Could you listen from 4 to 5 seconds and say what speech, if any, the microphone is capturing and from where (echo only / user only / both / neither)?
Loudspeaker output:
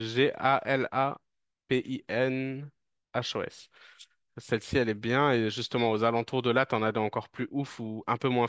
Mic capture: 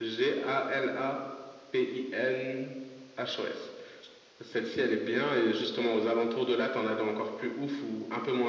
echo only